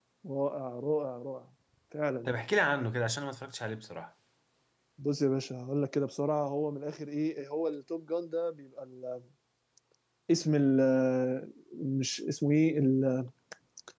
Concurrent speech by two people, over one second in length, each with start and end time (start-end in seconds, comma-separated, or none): none